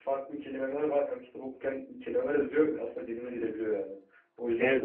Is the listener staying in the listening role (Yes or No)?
Yes